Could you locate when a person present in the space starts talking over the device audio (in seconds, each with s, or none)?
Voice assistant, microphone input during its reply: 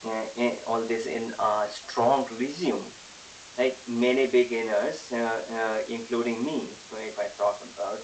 none